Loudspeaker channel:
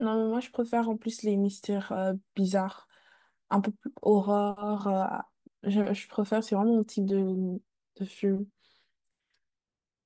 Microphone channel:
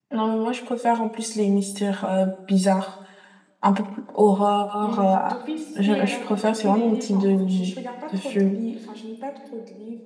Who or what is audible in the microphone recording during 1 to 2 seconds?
echo only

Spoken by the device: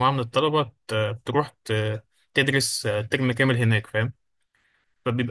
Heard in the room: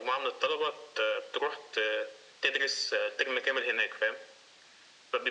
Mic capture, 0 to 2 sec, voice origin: echo only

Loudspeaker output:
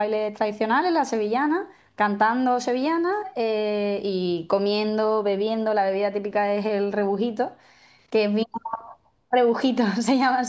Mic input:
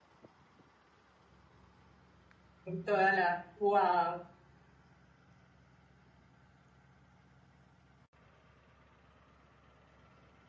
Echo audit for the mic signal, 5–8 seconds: neither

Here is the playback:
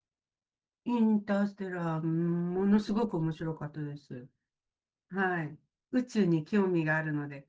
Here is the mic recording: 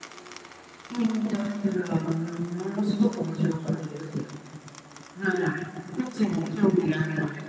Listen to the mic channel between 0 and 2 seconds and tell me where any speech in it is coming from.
echo only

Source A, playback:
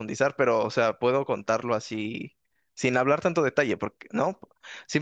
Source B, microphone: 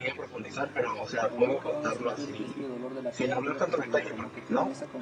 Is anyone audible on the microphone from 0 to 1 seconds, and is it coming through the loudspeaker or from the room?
echo only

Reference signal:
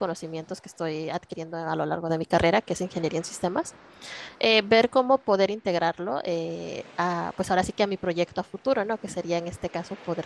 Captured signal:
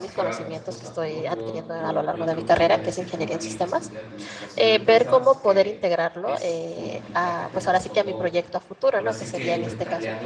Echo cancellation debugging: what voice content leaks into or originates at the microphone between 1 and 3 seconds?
both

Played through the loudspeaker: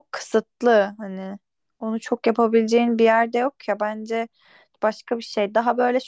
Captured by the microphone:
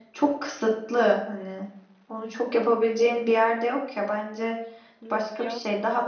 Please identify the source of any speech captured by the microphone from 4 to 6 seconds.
both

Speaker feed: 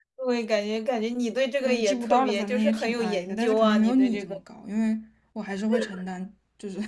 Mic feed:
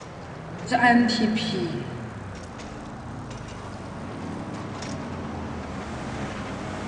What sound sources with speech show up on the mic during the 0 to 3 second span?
user only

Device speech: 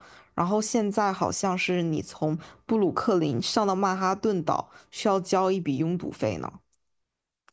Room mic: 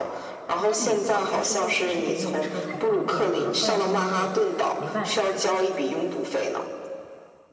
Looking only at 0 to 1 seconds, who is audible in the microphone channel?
both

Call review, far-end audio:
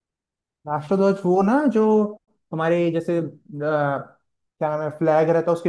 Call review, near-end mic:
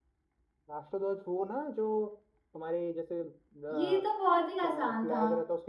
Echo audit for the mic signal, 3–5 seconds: both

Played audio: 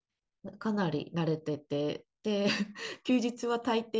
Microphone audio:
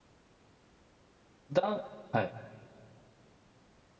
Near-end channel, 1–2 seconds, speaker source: user only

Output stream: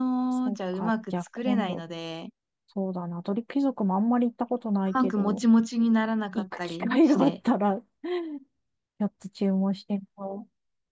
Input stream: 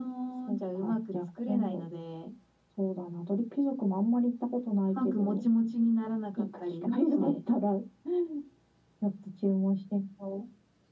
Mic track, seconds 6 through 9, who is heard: echo only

